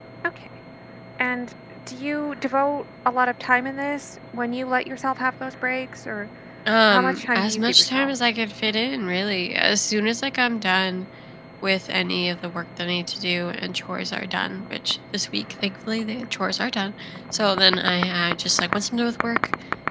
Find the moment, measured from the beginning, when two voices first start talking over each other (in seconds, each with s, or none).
6.9 s